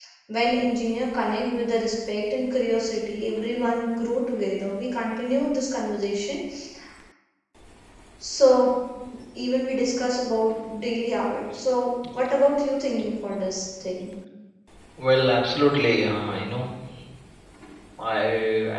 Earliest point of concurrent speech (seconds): none

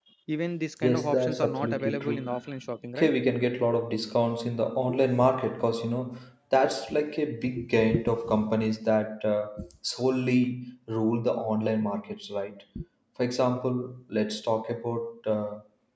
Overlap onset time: 0.8 s

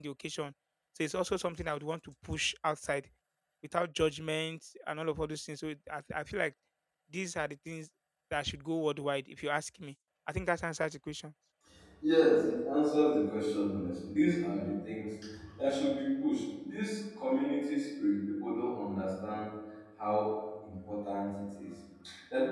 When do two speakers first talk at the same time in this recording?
none

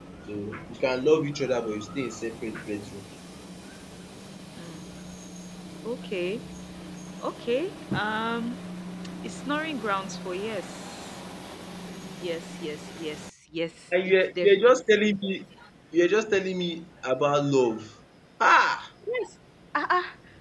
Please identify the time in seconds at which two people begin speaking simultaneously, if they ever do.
13.9 s

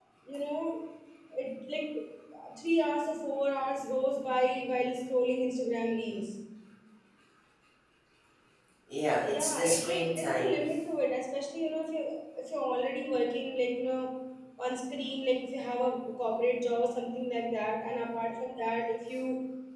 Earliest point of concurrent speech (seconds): 9.3 s

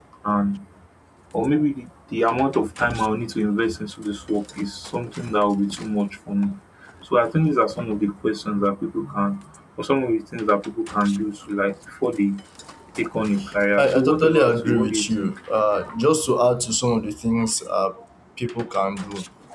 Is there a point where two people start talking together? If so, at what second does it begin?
13.8 s

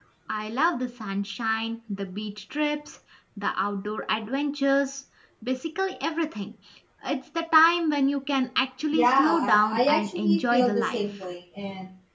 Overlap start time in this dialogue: 8.9 s

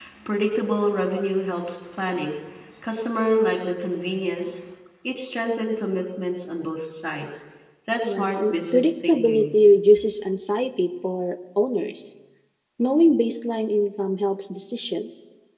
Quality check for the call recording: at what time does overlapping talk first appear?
8.0 s

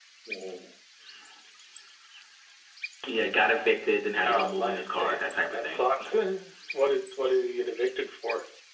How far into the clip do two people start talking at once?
4.2 s

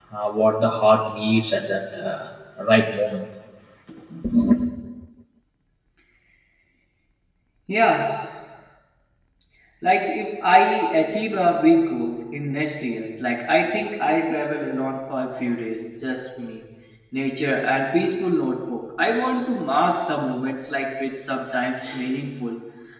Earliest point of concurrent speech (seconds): none

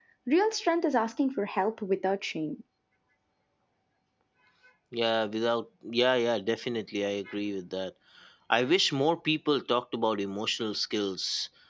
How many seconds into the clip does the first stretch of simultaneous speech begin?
none

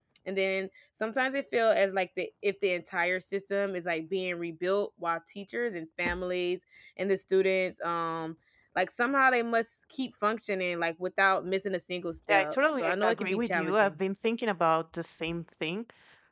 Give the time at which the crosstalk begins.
12.3 s

